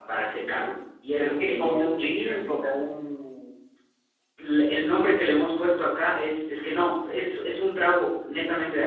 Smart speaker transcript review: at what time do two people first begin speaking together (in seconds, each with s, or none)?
1.2 s